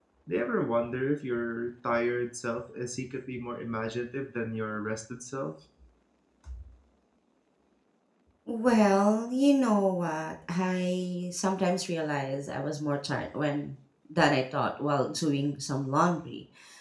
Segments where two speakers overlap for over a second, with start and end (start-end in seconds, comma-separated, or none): none